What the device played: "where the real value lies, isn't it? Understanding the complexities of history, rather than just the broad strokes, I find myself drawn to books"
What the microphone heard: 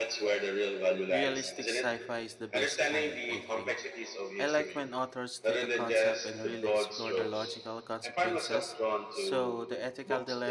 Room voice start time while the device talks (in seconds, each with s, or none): 1.1 s